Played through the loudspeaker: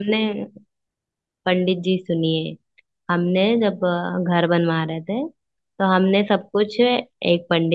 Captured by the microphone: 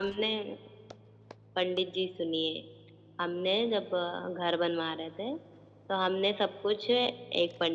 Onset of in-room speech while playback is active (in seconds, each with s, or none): none